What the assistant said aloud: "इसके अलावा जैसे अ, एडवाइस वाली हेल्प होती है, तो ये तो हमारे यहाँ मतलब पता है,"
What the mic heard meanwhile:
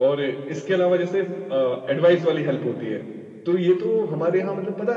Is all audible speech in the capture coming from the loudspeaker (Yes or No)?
Yes